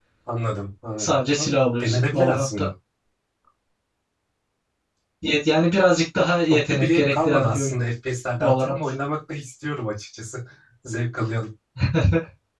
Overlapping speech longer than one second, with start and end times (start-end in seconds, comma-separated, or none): 1.0-2.7, 6.5-7.7